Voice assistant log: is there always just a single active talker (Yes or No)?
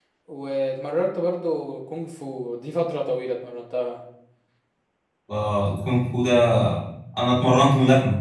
Yes